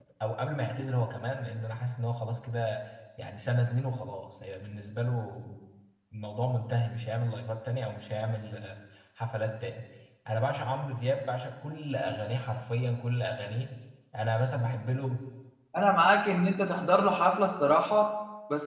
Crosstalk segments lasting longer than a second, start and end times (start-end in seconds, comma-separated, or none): none